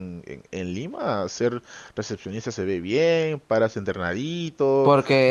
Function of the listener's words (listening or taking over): taking over